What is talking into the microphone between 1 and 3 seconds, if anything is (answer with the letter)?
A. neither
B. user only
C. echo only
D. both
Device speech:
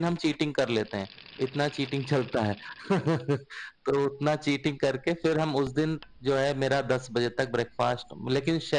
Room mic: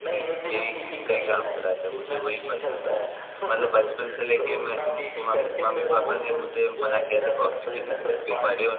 D